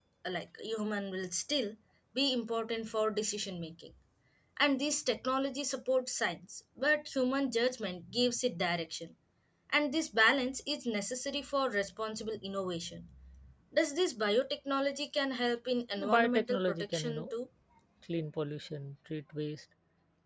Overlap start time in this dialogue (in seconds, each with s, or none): 16.0 s